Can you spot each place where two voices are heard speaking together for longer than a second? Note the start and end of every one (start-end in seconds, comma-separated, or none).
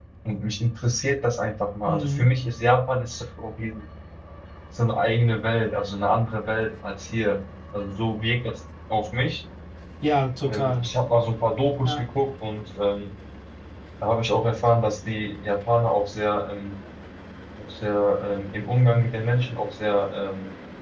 none